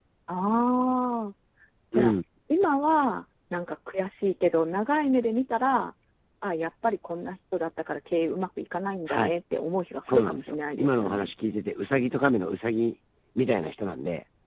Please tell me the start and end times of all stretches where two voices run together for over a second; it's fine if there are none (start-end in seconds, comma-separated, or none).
10.1-11.3